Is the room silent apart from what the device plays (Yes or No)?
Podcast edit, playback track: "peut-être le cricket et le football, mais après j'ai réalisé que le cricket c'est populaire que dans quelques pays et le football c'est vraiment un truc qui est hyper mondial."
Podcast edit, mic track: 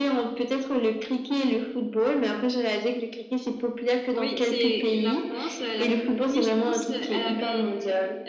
No